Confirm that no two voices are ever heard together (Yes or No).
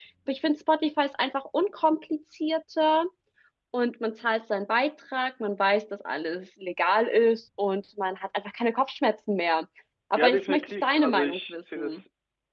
No